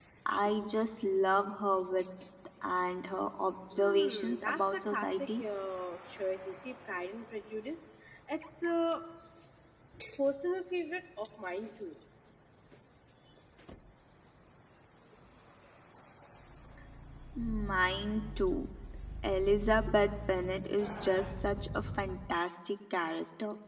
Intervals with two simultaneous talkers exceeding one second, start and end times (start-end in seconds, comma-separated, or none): 3.7-5.4